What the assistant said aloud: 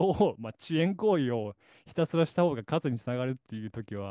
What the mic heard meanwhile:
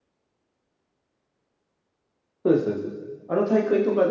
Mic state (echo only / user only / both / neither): user only